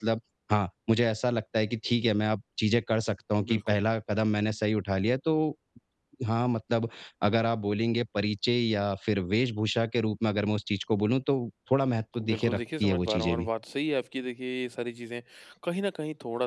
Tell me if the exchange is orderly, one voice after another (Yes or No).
No